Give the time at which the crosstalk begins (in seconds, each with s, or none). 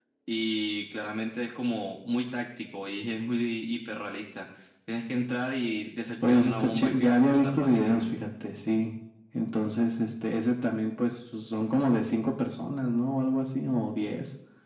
6.2 s